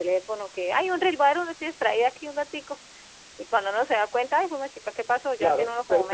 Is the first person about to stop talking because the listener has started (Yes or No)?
Yes